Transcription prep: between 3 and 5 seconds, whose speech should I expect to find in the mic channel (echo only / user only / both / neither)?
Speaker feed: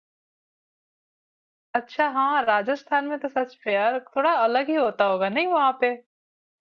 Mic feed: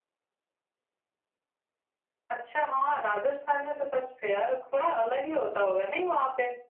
echo only